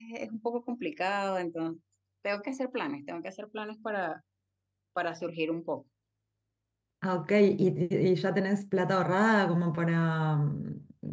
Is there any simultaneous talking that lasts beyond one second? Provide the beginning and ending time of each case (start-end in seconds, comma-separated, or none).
none